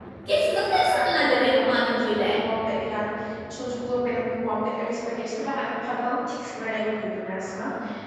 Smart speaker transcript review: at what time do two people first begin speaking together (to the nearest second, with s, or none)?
1 s